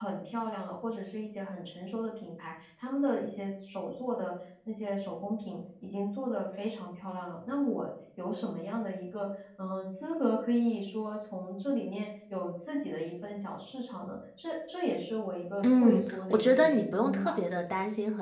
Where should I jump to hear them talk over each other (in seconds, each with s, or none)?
15.6 s